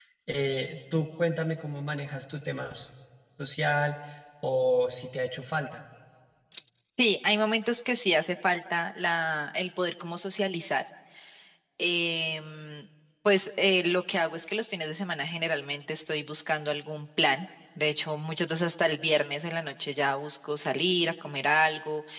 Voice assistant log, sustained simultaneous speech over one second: none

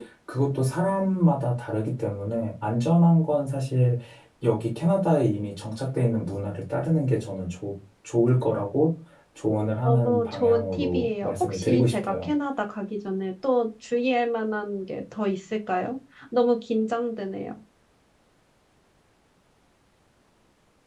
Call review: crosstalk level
present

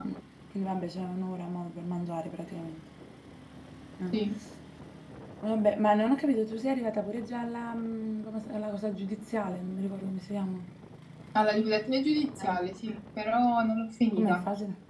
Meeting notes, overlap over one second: none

